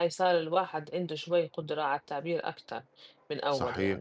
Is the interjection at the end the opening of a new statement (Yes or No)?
Yes